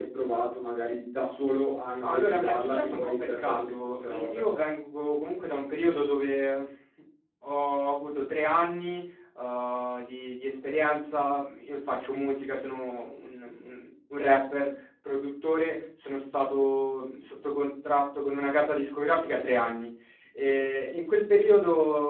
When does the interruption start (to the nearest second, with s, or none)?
2 s